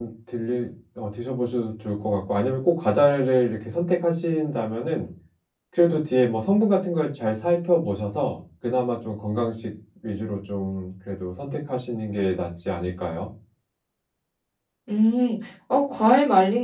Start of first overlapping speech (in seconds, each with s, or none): none